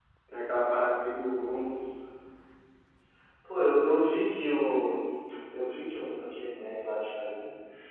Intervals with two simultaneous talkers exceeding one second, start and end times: none

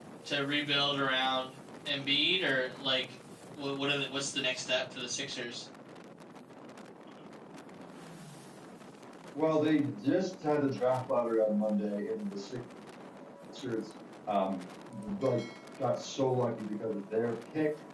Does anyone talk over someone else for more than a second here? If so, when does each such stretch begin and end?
none

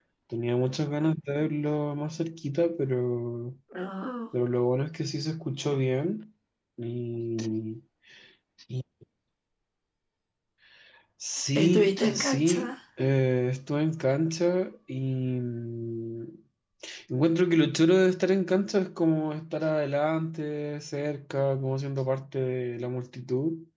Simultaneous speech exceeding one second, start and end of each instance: 11.6-12.8

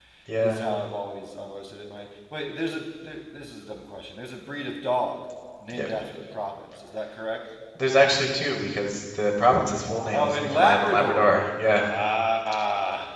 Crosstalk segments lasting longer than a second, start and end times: 10.1-11.3

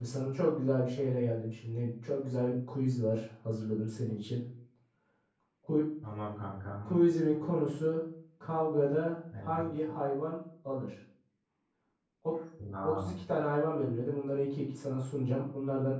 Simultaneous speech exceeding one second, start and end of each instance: none

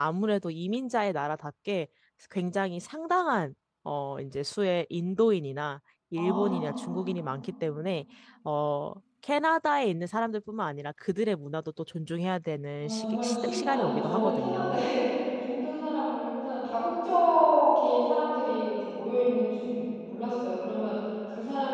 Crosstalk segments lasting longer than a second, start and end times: 12.8-14.9

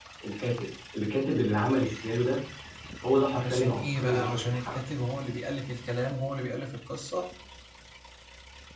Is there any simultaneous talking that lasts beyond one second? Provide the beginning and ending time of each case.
3.3-4.8

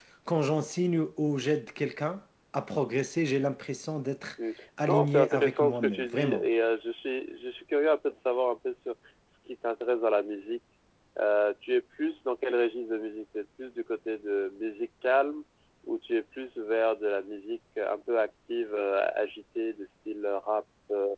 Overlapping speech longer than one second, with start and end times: 4.9-6.5

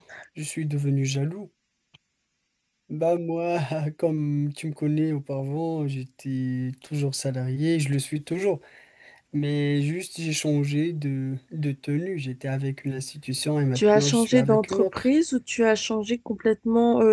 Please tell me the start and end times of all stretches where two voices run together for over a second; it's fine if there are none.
13.8-15.1

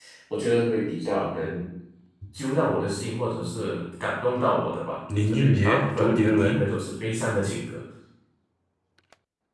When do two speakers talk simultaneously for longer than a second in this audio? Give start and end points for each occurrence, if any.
5.2-6.6

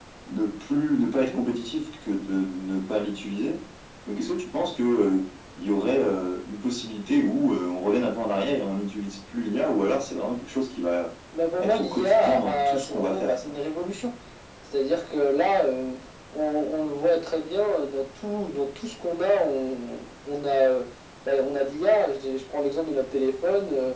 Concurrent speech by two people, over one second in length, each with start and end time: 11.6-13.6

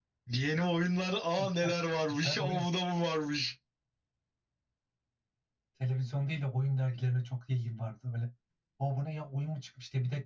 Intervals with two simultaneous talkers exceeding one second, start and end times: none

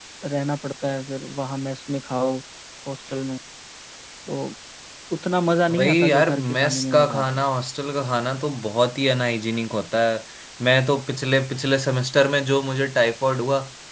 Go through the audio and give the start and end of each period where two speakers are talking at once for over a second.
5.7-7.4

